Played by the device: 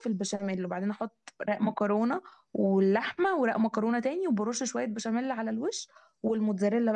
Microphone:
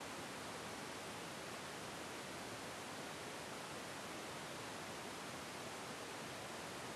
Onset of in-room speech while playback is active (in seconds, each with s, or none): none